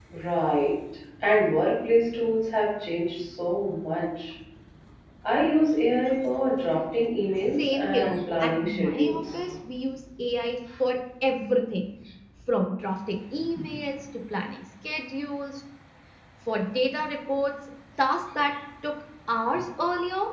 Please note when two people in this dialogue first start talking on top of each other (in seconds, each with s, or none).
7.4 s